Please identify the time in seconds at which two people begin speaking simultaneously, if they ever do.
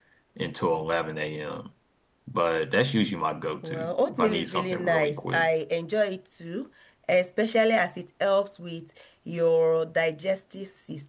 4 s

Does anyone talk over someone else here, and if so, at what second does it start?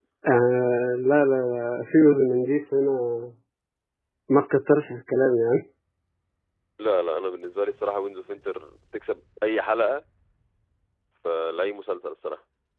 none

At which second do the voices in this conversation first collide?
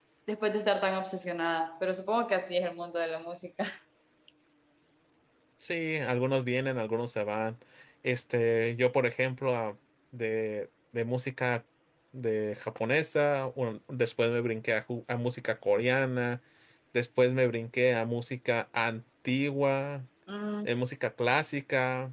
none

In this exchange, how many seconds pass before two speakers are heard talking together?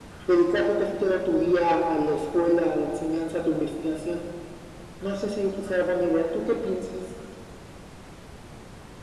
none

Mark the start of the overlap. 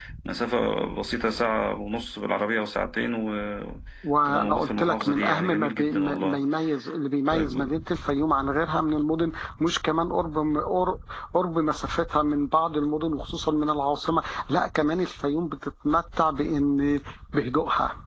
4 s

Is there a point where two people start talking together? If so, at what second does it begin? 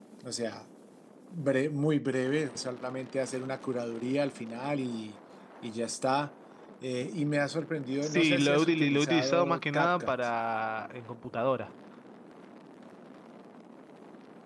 8 s

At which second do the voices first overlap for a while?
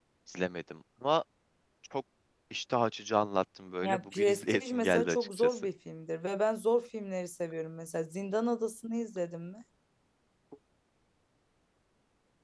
4 s

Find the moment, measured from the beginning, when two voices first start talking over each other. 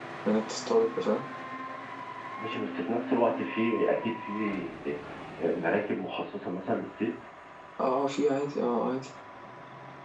none

